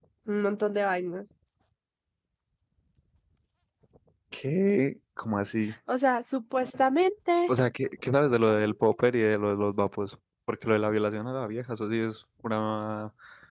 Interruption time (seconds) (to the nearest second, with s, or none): none